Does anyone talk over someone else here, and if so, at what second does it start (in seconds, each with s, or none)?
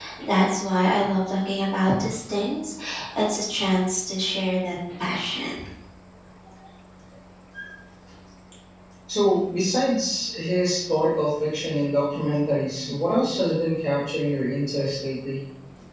none